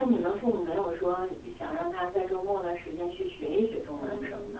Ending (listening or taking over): taking over